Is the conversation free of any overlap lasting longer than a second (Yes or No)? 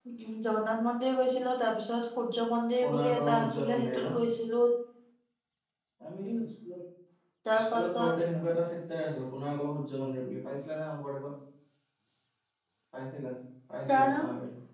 No